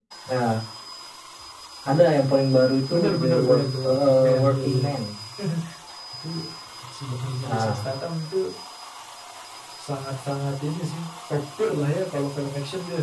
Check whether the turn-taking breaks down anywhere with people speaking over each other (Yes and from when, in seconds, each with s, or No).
Yes, from 2.9 s